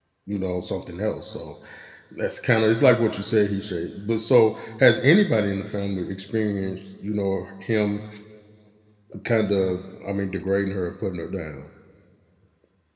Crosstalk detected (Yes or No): No